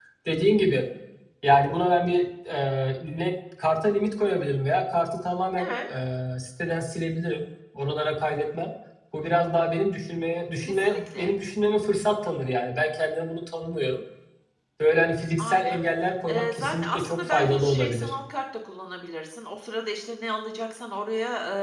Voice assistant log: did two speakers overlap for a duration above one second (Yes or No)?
Yes